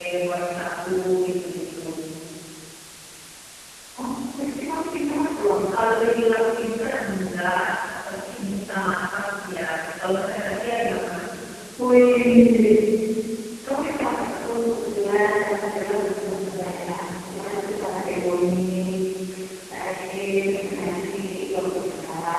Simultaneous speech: No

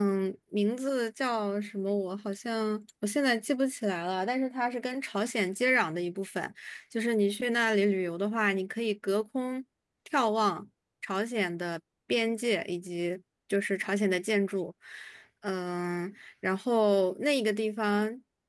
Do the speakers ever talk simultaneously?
No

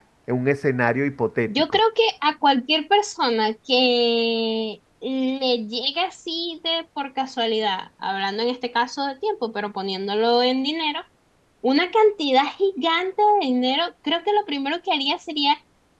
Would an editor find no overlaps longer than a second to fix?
Yes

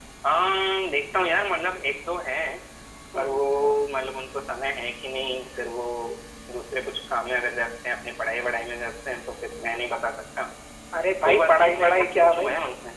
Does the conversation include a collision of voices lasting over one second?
Yes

